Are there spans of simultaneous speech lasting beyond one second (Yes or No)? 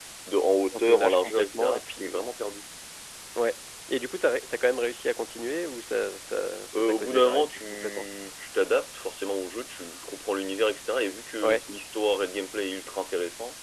Yes